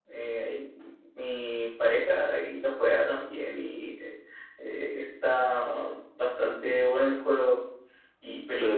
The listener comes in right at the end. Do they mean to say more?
No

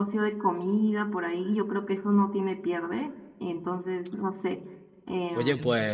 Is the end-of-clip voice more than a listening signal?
Yes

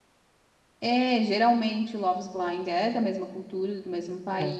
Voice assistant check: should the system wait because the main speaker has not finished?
Yes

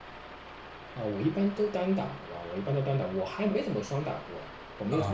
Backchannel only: No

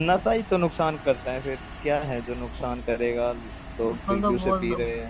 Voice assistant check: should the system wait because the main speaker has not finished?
No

